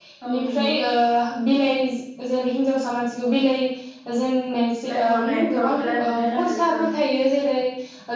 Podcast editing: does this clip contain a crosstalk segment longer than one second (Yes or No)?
Yes